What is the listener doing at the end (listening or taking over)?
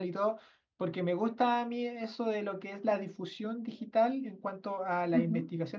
listening